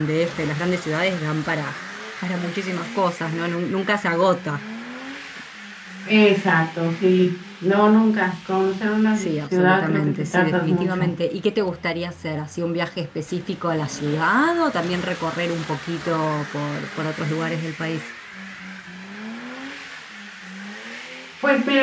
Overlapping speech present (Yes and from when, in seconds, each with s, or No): Yes, from 9.2 s